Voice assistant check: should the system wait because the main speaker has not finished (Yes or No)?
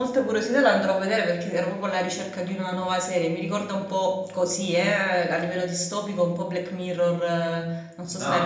No